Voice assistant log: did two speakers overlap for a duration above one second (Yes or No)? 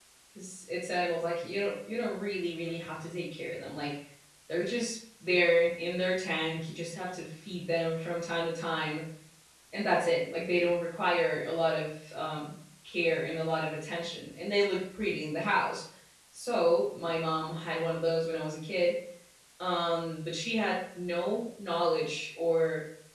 No